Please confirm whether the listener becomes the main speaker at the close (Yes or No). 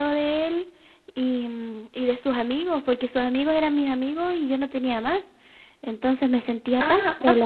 Yes